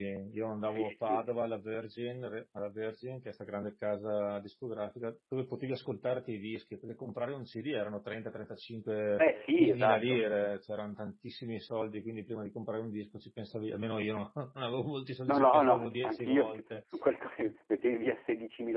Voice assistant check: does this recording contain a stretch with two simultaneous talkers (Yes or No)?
Yes